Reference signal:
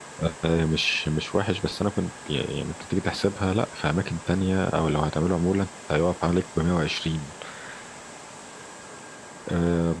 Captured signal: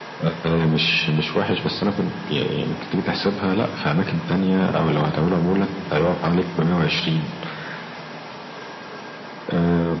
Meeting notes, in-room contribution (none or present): none